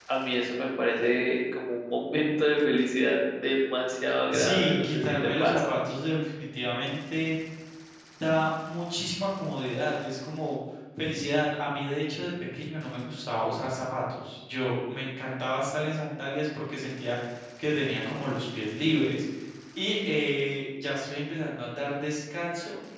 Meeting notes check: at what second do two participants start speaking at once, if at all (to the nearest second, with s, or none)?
4 s